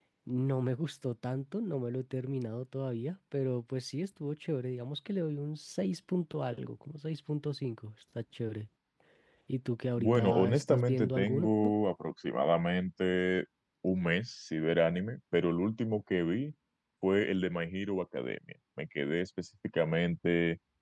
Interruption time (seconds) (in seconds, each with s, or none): 10.0 s